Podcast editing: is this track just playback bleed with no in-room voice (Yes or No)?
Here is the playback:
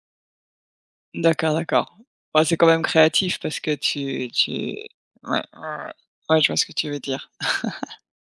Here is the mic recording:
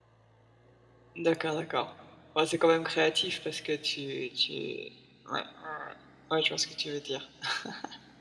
Yes